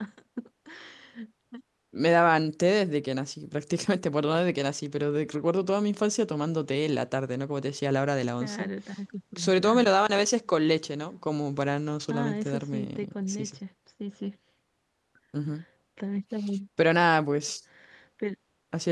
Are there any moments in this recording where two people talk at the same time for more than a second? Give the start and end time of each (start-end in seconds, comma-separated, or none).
12.1-13.6